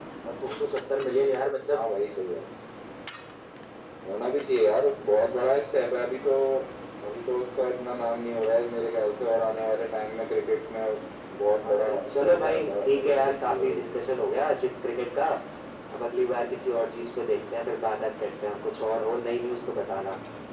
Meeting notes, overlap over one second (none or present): present